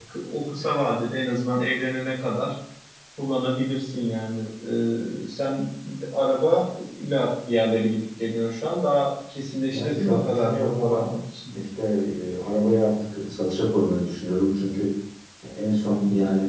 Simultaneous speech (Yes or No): Yes